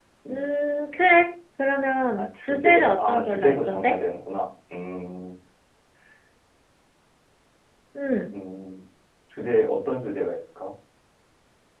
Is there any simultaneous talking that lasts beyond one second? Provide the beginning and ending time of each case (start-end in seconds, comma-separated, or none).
2.2-4.0